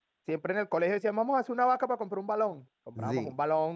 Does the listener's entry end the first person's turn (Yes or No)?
No